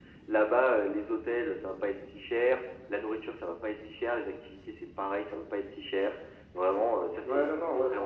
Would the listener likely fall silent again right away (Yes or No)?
No